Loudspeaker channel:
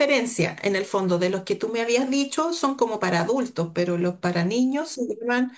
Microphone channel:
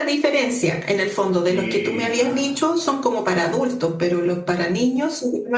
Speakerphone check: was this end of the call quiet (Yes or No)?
No